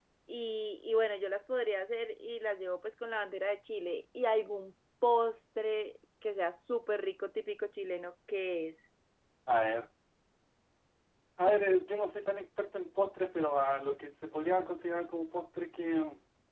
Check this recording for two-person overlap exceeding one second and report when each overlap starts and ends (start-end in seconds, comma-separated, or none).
none